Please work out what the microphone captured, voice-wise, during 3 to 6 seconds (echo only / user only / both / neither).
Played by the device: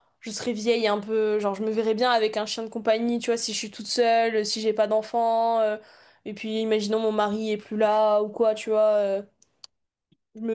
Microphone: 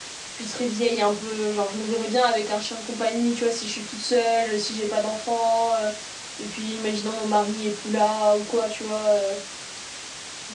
echo only